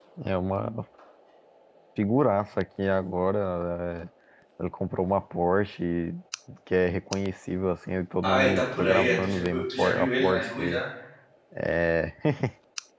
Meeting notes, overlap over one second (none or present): present